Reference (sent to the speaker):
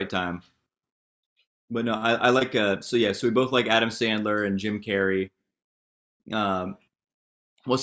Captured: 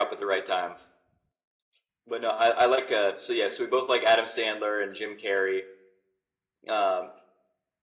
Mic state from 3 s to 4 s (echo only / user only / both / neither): echo only